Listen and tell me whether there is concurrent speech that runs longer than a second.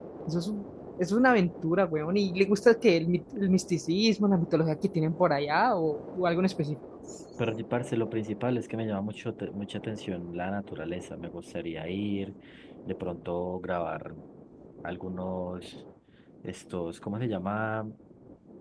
No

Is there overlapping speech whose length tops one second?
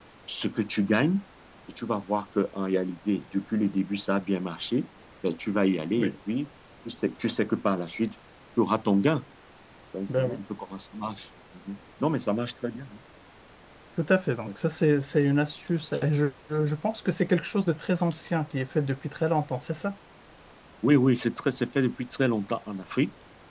No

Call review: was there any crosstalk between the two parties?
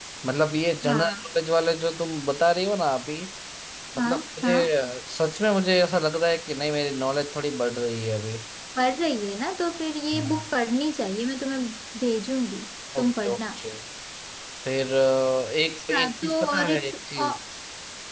Yes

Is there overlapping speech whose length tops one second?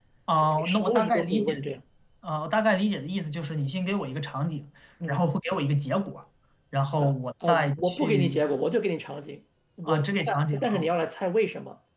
Yes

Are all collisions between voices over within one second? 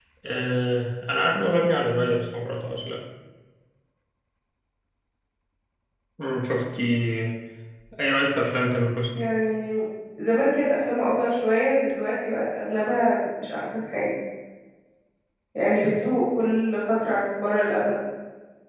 Yes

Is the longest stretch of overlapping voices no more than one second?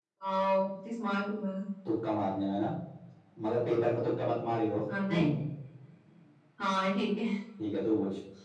Yes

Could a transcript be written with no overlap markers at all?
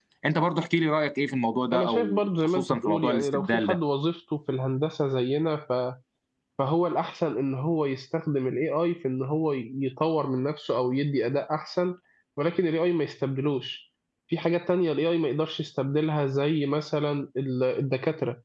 No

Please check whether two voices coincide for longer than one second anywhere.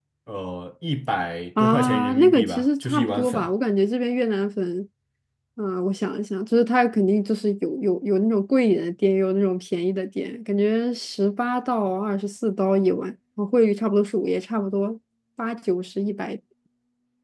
Yes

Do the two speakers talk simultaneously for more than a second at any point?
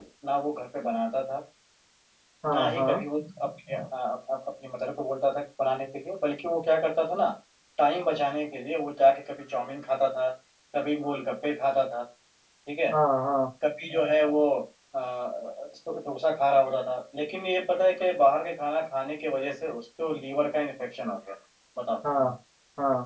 No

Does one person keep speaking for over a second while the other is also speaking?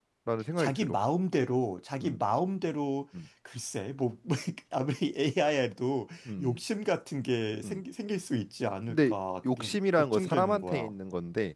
Yes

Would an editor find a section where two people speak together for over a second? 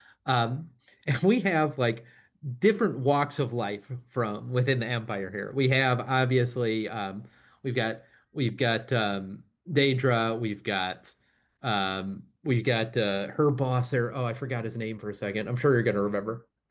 No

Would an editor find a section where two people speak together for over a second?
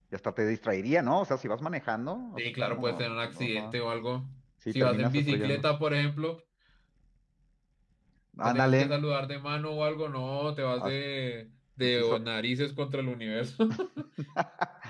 Yes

